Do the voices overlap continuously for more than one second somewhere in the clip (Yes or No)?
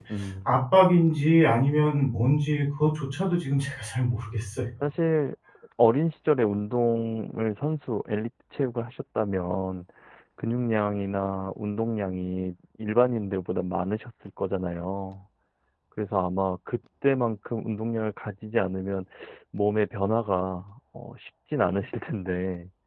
No